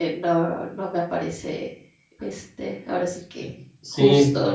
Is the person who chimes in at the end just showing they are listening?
No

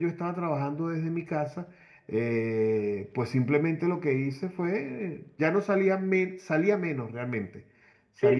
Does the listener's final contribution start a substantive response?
Yes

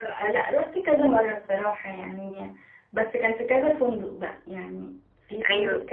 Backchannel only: Yes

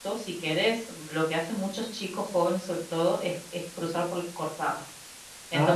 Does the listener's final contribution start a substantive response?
No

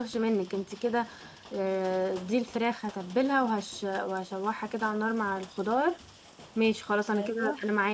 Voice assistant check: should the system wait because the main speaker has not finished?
Yes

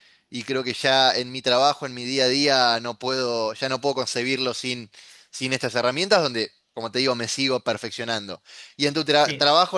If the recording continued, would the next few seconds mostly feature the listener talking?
No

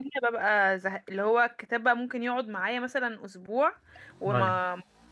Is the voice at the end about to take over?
No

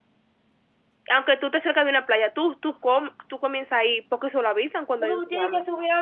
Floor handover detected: Yes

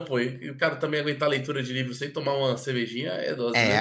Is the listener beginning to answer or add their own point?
Yes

